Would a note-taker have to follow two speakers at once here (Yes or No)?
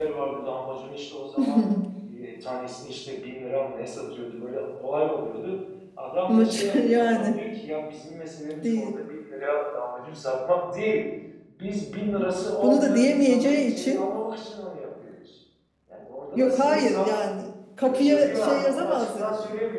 Yes